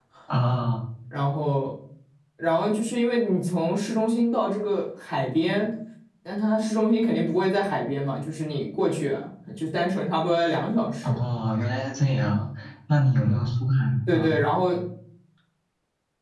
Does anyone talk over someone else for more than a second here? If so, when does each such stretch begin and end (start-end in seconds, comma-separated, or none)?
none